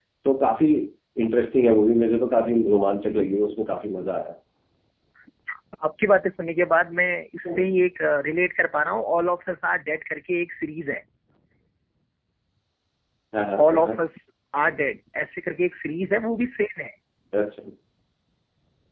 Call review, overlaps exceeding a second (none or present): none